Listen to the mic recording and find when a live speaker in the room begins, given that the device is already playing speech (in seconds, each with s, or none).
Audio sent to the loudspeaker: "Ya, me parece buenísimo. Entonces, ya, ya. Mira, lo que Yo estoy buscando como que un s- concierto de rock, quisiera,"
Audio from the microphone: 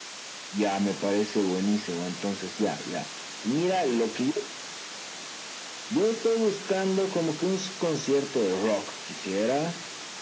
none